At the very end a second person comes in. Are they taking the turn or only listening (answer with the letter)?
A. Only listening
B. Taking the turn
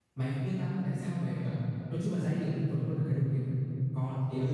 B